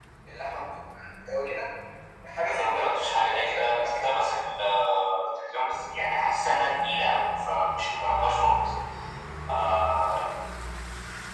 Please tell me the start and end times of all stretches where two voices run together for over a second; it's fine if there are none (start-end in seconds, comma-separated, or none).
2.5-4.2